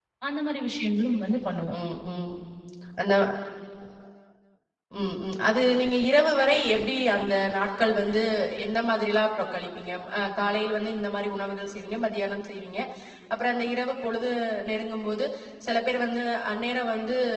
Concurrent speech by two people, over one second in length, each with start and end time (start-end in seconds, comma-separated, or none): none